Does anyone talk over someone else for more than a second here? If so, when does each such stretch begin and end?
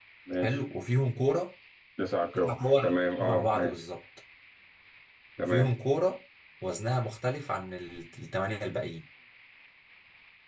2.3-3.8

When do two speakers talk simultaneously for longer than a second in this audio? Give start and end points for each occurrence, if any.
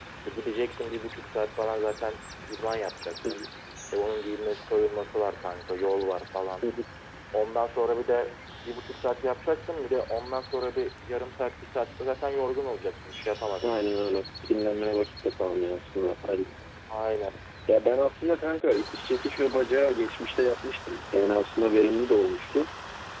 none

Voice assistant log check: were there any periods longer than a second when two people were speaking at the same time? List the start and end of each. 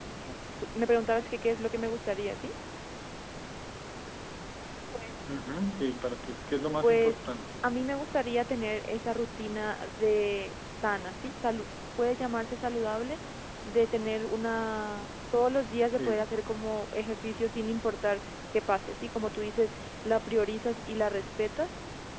none

